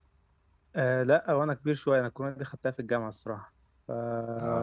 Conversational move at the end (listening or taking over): taking over